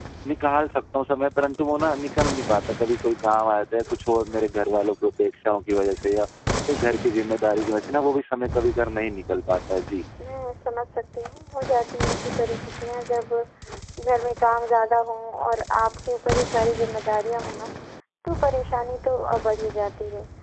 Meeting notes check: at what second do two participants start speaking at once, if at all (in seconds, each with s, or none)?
none